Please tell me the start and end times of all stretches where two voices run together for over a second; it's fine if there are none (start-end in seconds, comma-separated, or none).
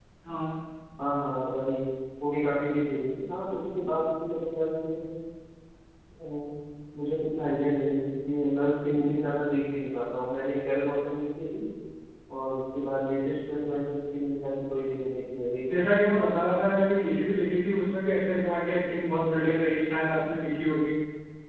none